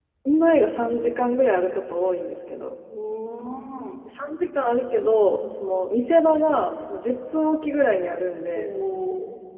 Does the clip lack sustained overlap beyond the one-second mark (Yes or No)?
Yes